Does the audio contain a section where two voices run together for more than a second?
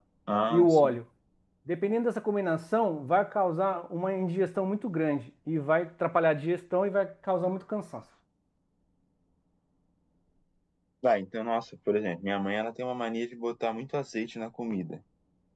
No

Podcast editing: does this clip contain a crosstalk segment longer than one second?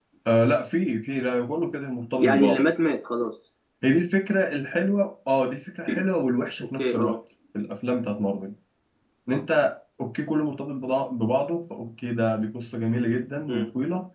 No

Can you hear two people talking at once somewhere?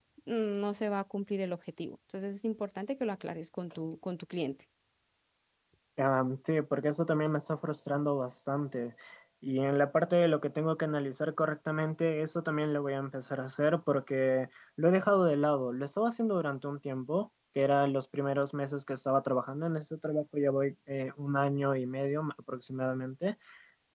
No

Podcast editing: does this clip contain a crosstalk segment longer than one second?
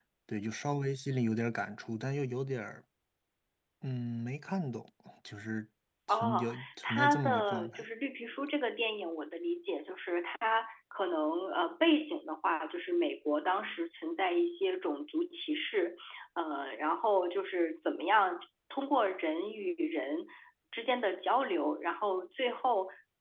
Yes, from 6.1 s

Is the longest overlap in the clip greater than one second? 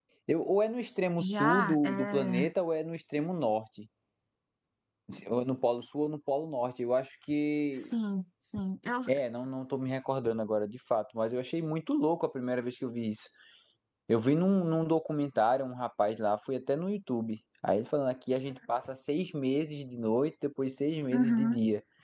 Yes, from 1.2 s

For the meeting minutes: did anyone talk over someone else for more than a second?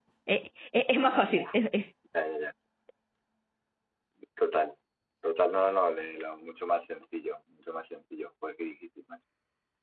No

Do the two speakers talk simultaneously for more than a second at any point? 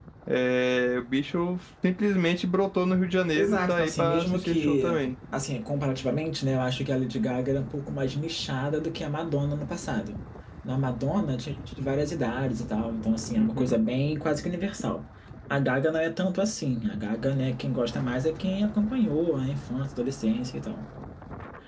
Yes, from 3.4 s

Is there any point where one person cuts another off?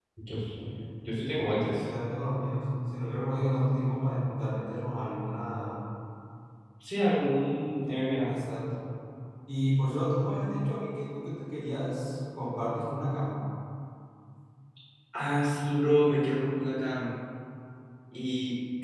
No

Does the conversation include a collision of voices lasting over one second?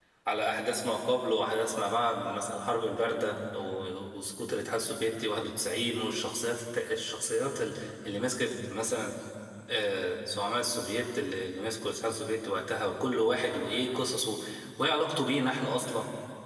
No

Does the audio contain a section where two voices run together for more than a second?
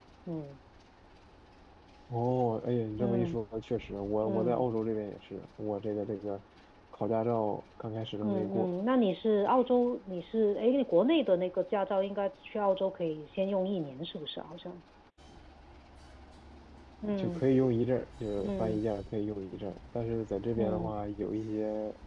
No

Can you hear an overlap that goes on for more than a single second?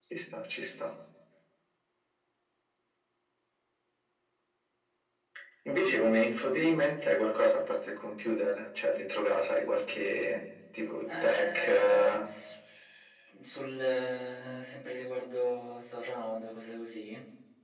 Yes, from 11.1 s

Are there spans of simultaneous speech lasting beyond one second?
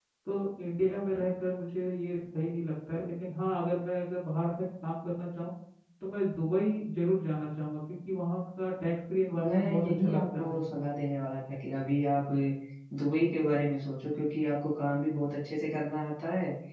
Yes, from 9.3 s

